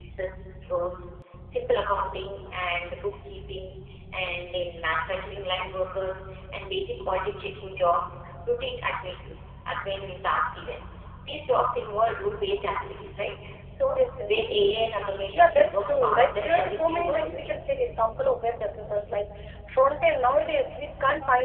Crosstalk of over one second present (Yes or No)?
Yes